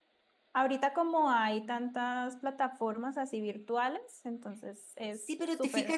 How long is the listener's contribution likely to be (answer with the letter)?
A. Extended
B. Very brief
A